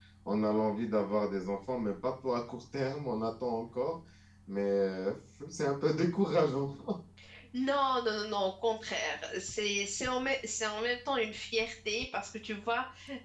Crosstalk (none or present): none